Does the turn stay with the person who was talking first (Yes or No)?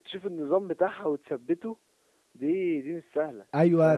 No